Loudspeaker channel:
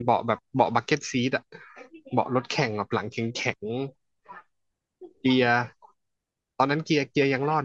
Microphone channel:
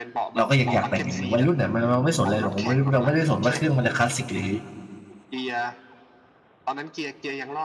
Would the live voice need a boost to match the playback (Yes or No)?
No